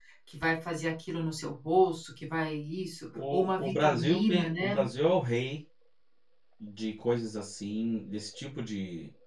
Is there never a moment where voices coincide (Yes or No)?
No